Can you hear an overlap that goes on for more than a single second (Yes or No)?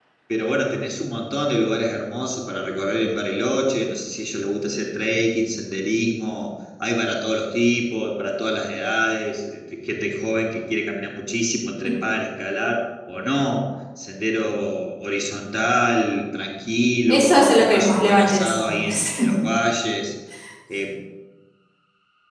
Yes